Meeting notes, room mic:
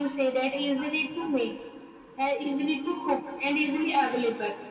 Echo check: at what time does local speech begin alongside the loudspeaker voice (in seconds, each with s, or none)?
none